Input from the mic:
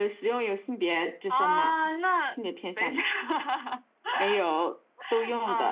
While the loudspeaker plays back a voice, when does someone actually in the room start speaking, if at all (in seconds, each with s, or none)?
none